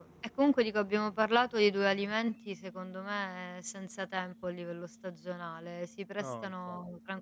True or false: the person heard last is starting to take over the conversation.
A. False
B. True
A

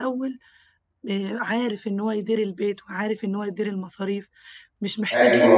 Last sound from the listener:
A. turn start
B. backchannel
A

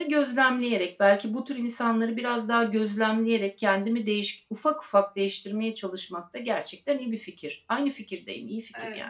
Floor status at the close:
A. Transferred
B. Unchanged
A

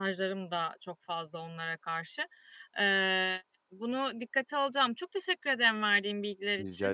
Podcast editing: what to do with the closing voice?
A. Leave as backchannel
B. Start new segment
A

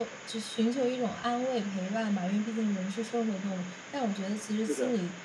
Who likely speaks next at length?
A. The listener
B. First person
B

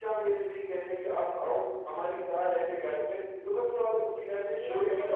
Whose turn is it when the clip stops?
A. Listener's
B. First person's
A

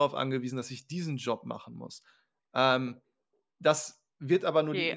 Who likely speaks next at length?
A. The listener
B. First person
A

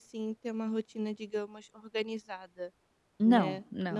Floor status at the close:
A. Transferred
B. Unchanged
B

